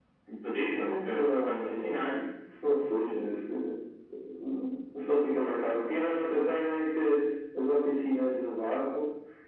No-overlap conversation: No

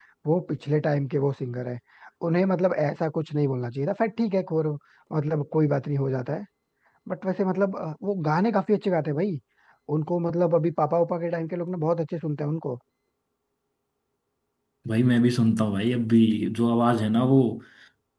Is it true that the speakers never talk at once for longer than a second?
Yes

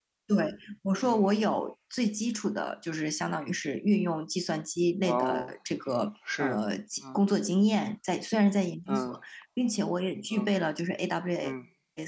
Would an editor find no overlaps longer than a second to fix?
Yes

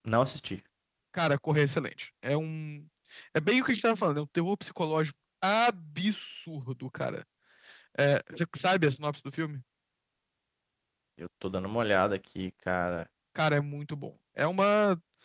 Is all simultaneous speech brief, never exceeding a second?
Yes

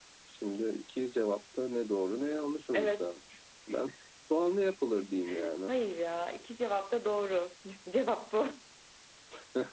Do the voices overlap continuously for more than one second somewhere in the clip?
No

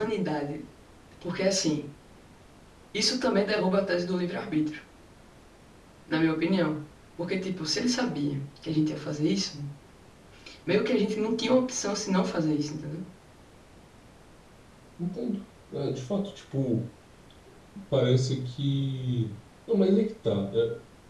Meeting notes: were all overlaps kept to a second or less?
Yes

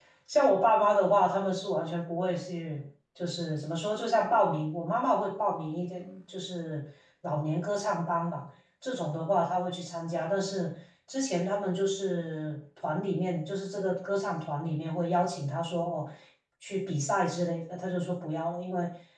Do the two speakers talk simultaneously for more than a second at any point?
No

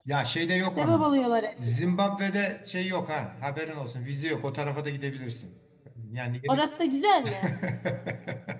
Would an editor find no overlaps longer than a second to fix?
Yes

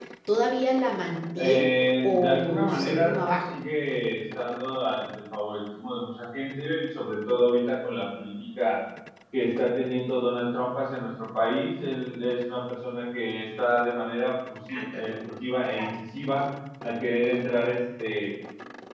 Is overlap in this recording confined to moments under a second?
No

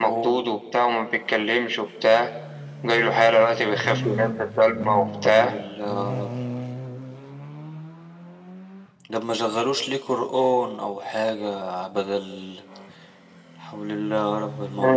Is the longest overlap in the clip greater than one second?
No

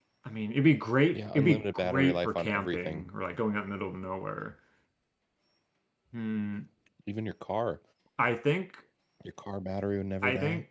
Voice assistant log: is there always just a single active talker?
No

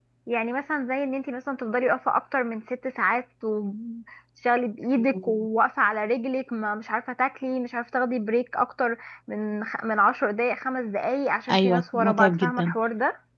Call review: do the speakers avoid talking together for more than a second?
No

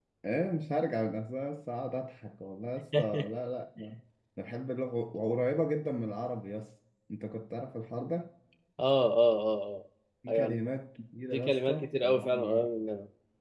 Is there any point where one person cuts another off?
Yes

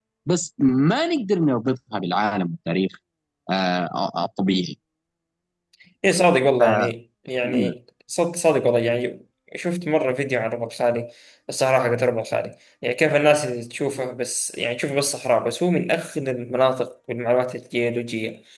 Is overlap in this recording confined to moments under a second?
Yes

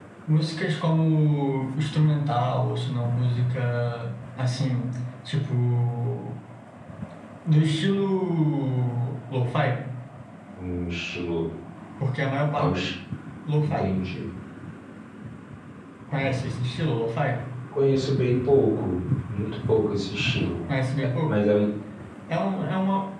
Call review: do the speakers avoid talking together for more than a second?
Yes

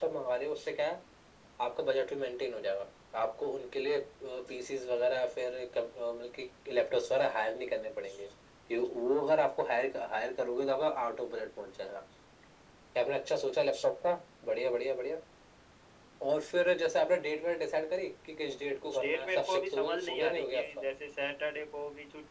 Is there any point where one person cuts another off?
Yes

